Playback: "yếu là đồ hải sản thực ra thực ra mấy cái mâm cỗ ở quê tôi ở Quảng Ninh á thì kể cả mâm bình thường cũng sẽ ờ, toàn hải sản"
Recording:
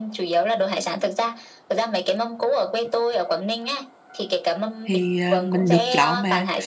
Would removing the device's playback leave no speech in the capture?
No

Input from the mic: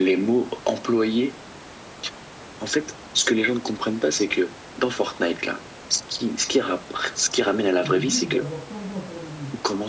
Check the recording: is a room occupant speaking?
Yes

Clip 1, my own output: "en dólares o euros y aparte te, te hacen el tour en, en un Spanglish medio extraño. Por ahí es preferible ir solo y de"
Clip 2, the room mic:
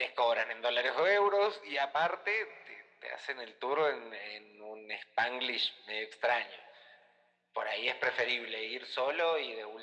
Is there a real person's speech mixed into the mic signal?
No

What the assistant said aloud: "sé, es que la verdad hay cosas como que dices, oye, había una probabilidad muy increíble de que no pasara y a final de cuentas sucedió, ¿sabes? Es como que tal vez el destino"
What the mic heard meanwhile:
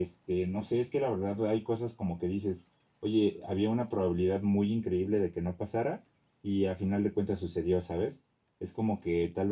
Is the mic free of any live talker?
Yes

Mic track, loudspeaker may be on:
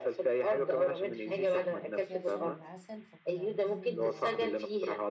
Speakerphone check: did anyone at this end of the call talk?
Yes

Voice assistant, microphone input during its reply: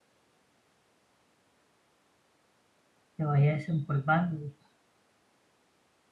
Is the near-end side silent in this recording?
No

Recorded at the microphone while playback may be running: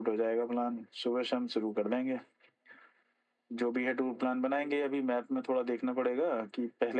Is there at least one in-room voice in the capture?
No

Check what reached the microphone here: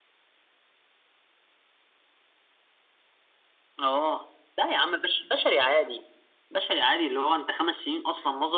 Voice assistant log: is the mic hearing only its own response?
Yes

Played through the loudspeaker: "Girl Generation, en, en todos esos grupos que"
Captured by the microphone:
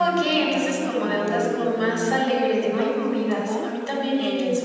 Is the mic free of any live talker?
No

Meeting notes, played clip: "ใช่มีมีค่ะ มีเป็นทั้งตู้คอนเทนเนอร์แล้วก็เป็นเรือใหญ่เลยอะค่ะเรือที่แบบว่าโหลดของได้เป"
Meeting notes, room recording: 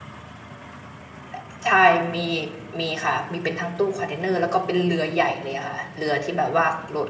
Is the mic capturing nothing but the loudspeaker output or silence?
Yes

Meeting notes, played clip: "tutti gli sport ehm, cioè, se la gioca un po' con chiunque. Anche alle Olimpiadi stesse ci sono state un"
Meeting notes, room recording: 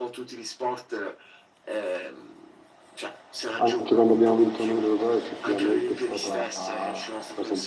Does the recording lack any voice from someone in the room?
No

